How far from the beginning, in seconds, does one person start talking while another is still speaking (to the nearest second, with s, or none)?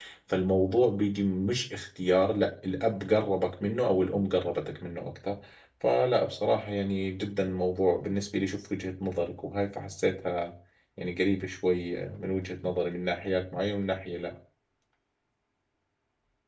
none